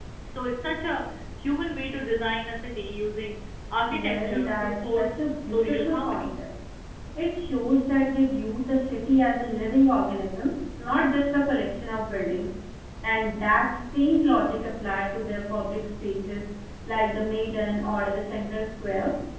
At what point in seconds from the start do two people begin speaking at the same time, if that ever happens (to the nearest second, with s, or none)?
4 s